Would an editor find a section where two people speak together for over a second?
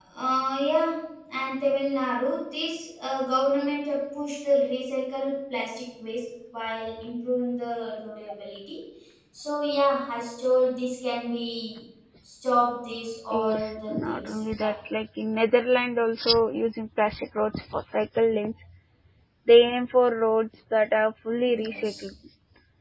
Yes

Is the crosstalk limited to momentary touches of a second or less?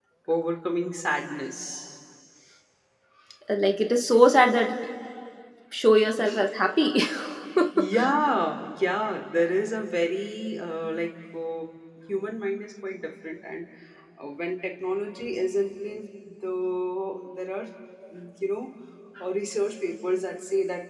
Yes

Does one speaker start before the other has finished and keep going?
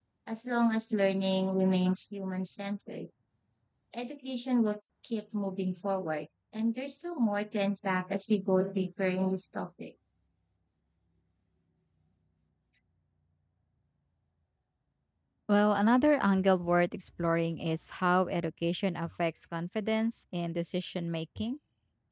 No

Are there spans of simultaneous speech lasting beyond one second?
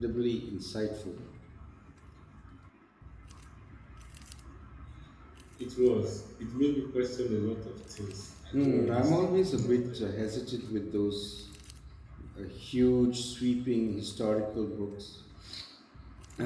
Yes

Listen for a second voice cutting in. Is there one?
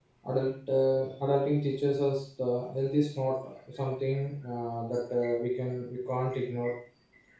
No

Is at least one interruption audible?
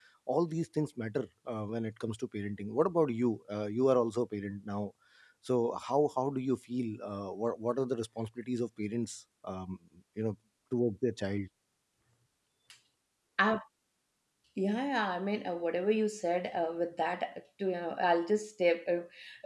No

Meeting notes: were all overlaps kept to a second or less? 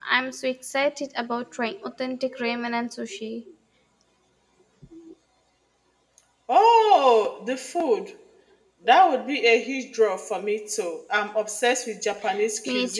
Yes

